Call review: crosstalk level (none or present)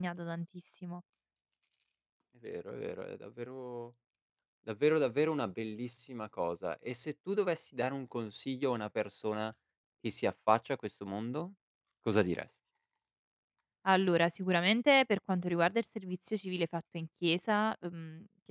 none